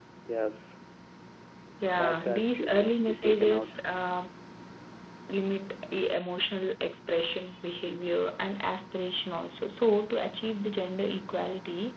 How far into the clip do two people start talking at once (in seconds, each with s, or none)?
2.0 s